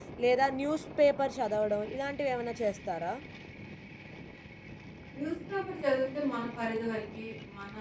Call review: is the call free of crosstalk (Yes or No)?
Yes